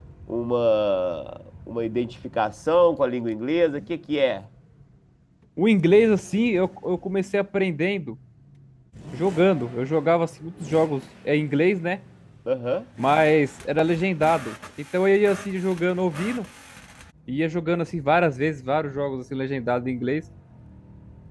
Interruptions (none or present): none